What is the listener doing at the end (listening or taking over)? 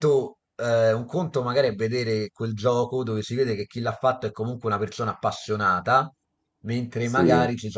listening